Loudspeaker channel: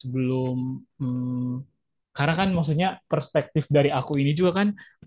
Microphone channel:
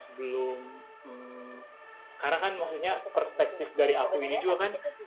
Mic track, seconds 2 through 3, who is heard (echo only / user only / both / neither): both